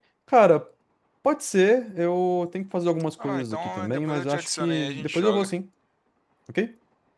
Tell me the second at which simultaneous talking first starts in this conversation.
3 s

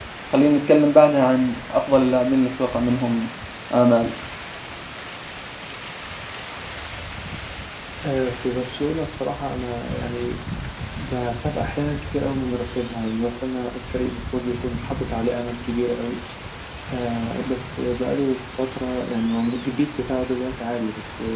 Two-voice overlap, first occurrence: none

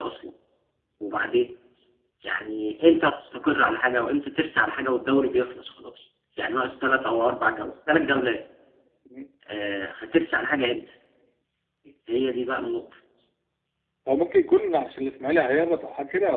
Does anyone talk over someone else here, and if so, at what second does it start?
none

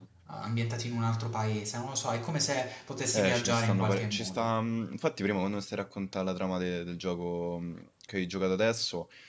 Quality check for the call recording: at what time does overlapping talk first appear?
3 s

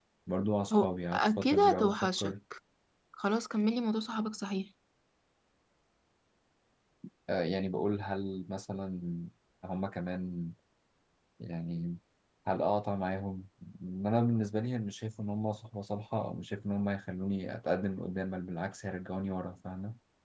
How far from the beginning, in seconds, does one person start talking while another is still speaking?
1 s

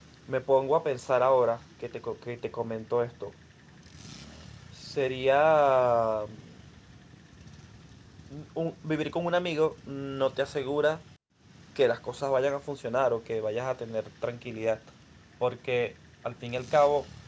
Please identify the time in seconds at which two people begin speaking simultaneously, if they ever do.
none

